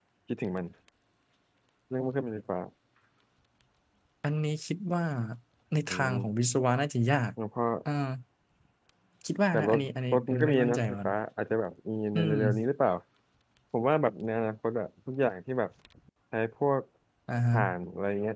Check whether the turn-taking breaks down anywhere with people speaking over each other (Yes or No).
Yes